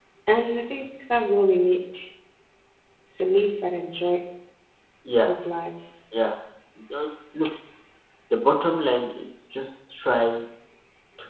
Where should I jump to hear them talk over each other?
none

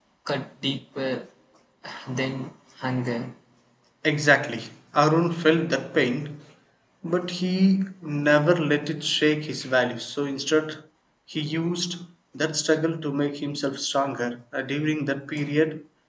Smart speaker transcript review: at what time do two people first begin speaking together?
none

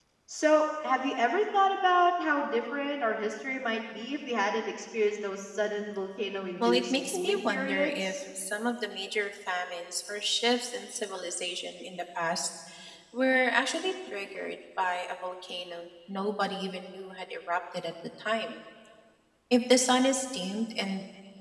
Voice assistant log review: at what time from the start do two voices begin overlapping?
6.6 s

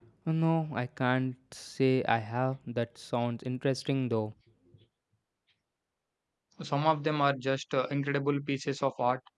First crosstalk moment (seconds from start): none

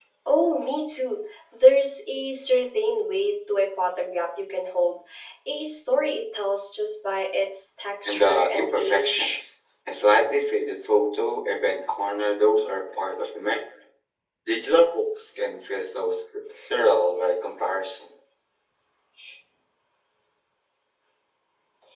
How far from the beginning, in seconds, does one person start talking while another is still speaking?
8.0 s

